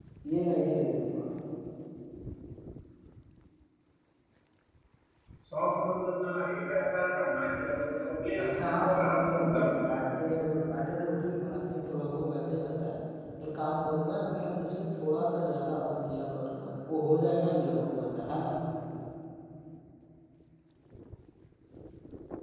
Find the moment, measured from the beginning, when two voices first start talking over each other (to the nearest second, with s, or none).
8 s